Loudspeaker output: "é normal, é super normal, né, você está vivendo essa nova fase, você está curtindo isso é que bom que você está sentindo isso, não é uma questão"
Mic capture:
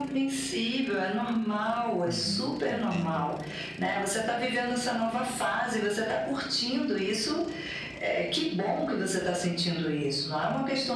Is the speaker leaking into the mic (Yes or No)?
Yes